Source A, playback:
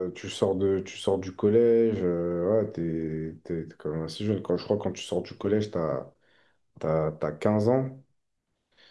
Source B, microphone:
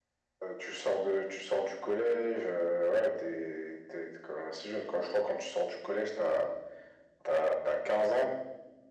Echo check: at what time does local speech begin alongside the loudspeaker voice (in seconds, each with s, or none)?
none